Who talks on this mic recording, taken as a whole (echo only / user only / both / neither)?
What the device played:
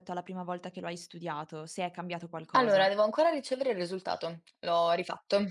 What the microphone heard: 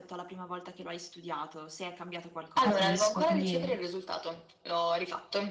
both